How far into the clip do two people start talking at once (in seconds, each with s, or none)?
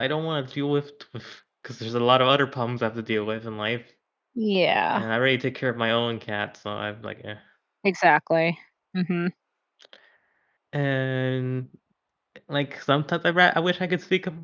none